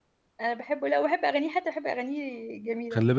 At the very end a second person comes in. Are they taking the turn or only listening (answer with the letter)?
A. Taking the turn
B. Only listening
A